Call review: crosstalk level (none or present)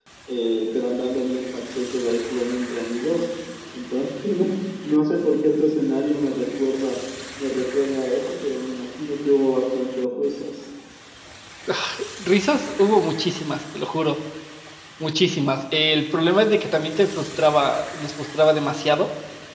none